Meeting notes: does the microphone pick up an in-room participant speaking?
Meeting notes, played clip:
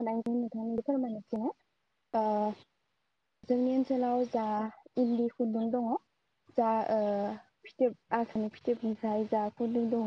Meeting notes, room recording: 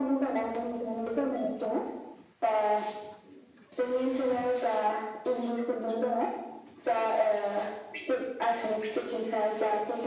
No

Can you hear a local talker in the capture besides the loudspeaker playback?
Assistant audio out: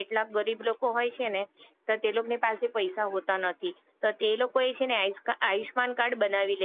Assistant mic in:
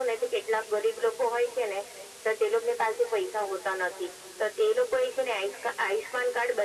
No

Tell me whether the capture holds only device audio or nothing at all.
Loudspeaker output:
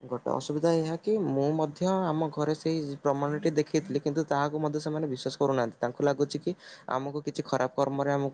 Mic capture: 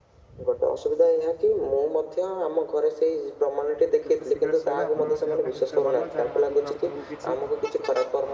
No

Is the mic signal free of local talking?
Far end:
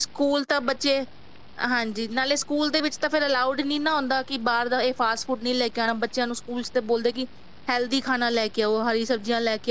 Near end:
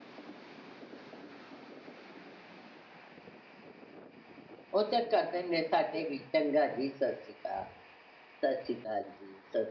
No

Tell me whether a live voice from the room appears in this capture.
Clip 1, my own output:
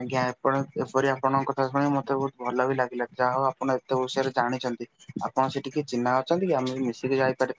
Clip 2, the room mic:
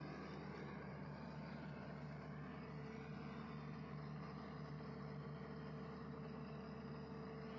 No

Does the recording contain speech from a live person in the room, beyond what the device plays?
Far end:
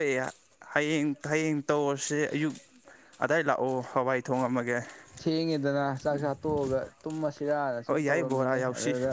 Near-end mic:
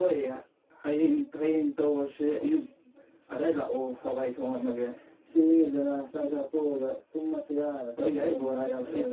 No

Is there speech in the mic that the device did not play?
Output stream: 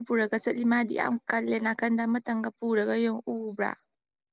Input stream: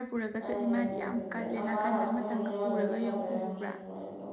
Yes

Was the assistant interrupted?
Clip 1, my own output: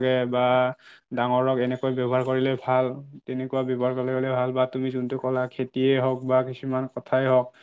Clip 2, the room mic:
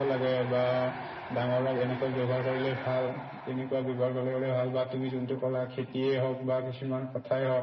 No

